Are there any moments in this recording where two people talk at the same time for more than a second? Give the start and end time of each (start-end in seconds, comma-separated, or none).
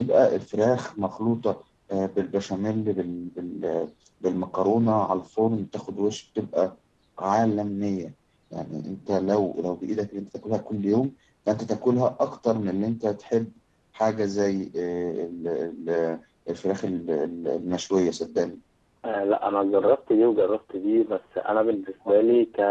none